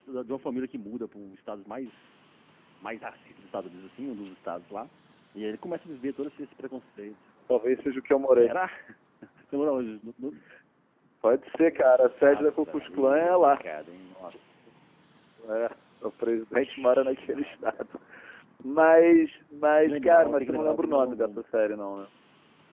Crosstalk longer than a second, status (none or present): present